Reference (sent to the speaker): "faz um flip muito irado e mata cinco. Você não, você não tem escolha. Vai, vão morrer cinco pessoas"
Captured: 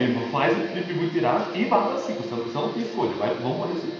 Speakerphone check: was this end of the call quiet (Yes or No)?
Yes